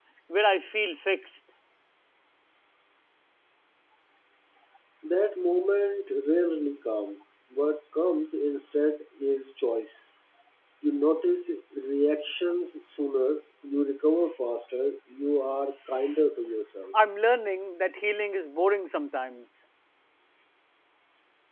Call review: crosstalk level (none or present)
none